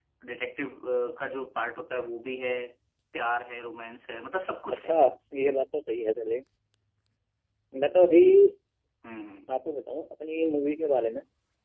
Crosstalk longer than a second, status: none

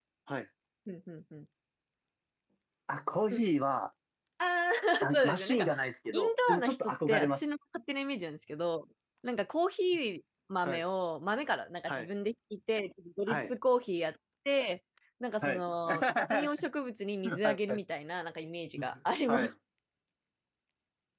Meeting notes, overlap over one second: present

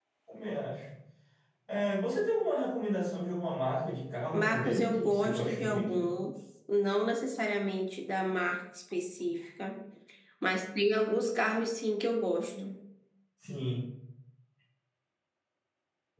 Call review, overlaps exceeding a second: present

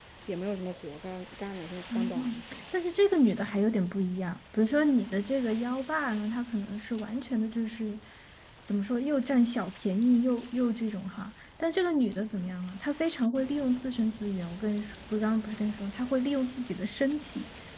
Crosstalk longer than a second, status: none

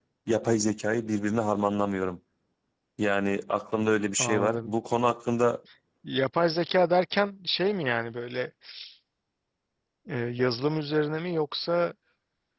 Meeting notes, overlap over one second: none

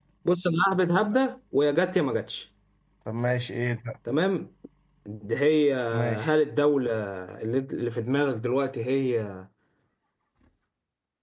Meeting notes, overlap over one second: none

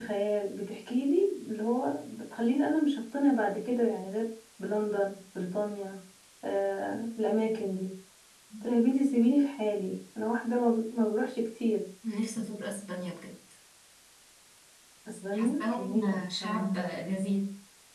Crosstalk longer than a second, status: present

